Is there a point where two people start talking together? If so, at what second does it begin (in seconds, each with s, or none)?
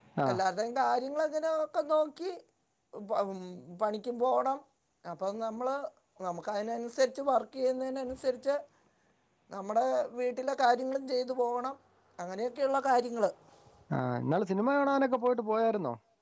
none